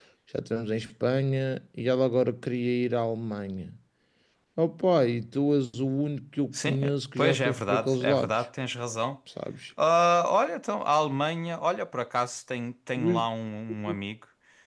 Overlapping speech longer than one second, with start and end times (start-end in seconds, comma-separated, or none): 6.5-8.4